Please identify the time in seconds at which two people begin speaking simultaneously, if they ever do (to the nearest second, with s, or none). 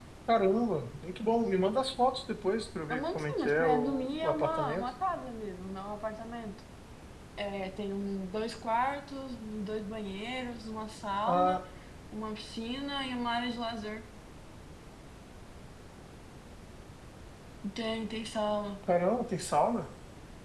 3 s